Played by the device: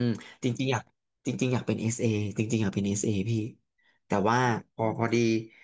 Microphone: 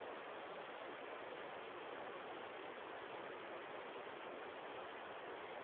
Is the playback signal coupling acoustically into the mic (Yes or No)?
No